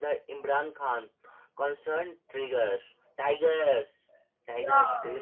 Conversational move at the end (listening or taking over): taking over